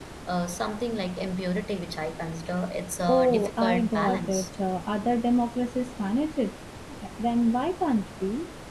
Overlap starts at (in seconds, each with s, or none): 3.0 s